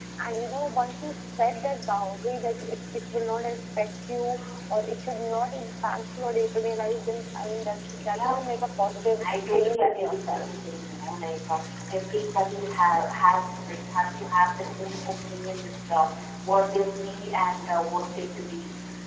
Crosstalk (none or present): present